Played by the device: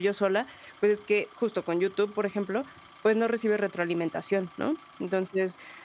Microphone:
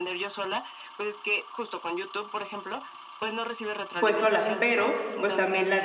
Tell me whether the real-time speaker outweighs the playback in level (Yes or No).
Yes